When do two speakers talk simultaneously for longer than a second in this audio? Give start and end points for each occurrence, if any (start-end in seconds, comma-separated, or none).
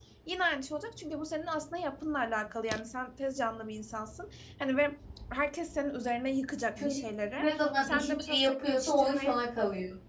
7.8-9.4